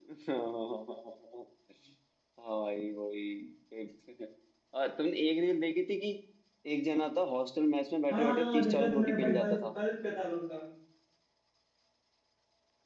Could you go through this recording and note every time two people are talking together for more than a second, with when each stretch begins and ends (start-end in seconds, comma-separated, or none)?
8.1-9.7